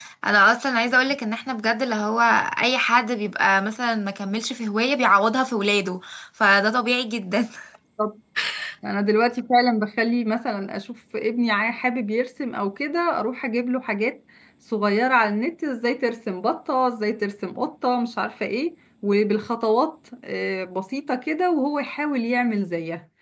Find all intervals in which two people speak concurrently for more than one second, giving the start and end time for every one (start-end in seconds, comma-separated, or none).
none